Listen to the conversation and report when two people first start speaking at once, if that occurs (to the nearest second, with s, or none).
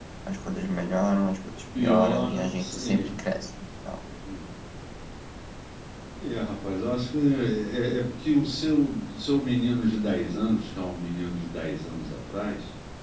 2 s